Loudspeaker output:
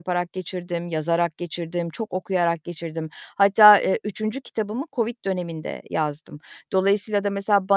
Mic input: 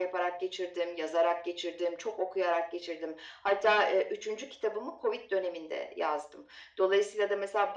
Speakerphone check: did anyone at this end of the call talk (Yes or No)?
No